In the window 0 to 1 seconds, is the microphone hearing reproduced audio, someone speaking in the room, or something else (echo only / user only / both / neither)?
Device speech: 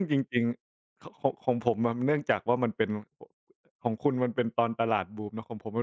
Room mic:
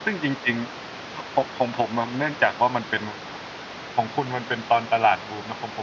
echo only